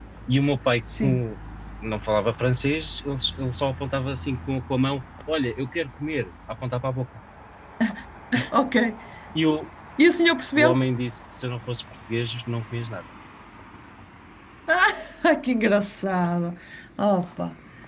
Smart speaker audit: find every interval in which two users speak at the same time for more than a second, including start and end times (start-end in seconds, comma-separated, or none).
none